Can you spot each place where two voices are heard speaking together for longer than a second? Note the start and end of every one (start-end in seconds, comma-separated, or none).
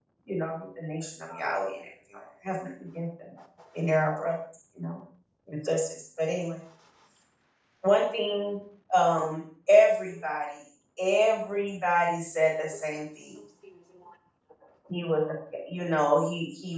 none